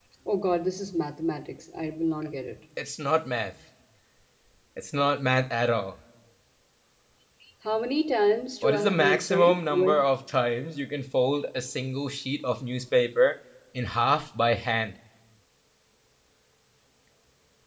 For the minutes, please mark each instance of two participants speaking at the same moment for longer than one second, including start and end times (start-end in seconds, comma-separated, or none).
8.6-10.0